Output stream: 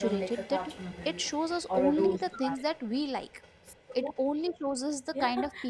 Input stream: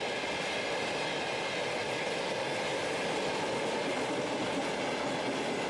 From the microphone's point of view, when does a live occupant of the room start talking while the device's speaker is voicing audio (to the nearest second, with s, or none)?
none